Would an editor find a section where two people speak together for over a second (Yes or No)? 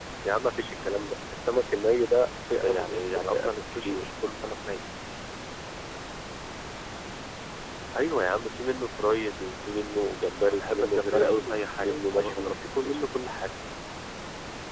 Yes